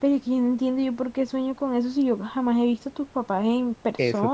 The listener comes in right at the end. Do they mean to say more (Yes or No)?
Yes